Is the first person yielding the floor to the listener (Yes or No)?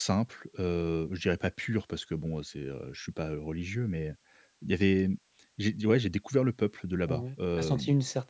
Yes